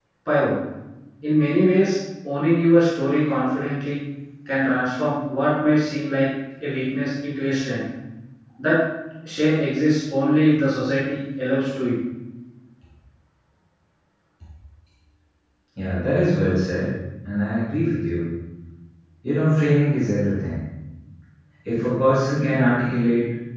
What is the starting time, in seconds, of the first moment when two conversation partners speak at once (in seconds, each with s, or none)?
none